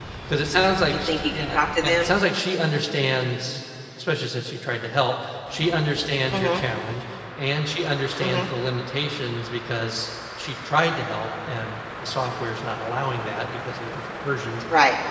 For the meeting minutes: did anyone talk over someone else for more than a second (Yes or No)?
Yes